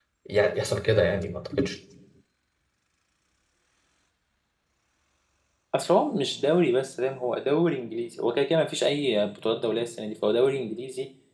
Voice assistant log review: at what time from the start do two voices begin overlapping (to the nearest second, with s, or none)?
none